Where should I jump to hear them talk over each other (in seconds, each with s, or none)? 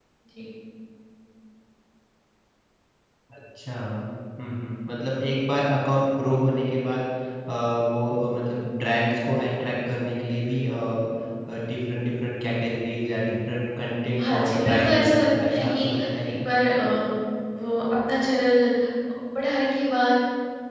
14.2 s